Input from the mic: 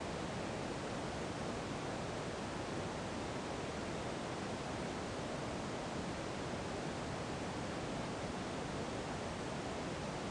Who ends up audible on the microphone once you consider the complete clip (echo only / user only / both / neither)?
neither